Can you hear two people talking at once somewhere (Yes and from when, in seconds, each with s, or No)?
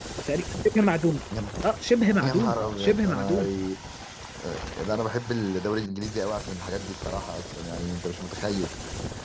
Yes, from 2.2 s